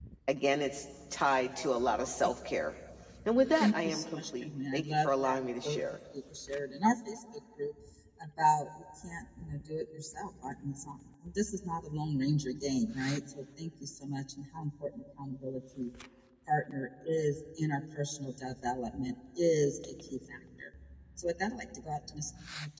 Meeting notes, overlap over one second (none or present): present